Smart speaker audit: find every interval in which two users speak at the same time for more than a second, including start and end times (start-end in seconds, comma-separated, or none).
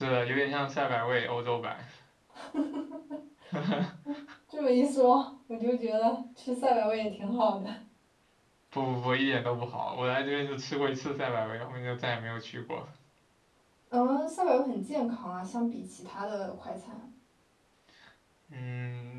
none